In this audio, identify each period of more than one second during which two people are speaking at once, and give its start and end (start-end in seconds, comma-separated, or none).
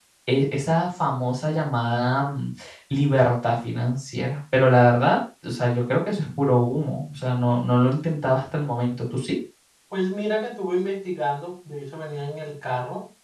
none